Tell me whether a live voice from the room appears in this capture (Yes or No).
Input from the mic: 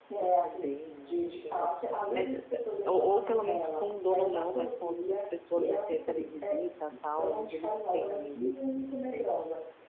Yes